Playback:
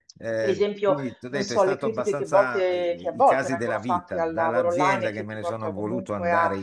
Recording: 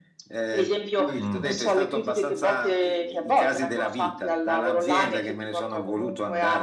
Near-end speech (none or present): present